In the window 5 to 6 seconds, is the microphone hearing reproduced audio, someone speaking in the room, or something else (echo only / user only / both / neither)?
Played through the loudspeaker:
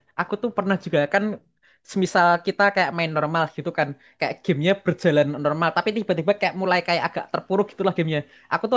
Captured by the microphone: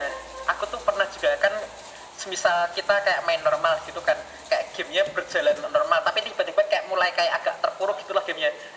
echo only